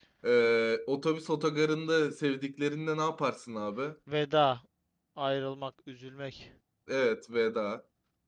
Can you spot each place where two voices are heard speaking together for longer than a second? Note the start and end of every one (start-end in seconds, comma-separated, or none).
none